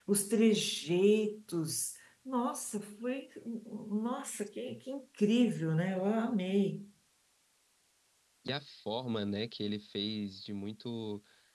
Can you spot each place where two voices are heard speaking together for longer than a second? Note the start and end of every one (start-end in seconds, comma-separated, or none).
none